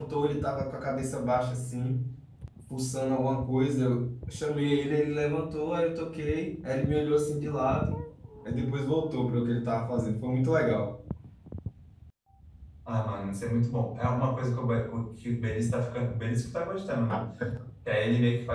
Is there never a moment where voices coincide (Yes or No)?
Yes